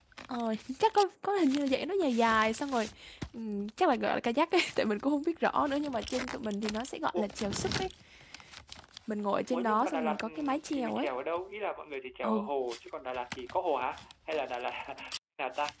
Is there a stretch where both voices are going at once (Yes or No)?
Yes